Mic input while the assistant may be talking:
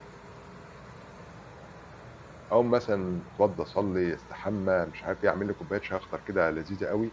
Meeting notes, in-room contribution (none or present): present